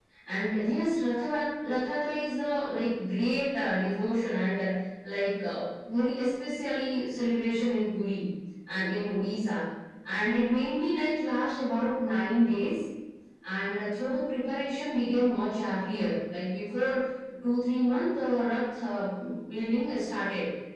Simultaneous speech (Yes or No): No